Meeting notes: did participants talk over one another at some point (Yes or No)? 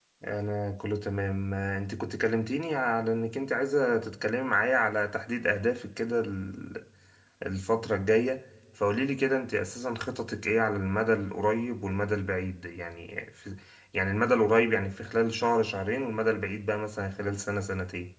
No